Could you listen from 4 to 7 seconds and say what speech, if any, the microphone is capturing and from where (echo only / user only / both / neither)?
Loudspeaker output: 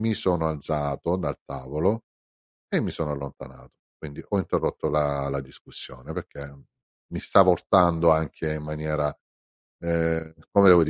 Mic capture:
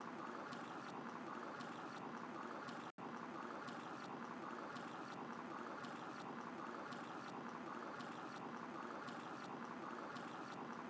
neither